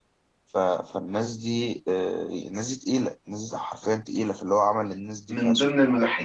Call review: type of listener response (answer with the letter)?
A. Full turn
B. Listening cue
A